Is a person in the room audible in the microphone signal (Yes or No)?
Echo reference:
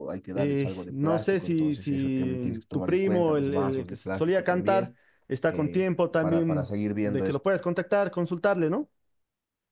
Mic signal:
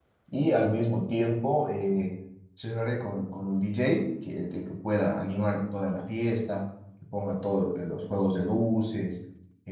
Yes